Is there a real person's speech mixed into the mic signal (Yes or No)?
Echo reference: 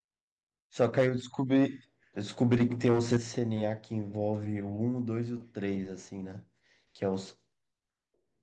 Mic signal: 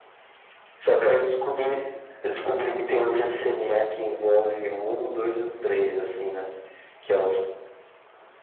No